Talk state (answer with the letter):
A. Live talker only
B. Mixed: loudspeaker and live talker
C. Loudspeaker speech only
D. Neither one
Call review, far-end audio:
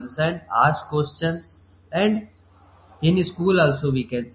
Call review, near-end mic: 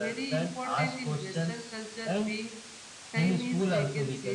B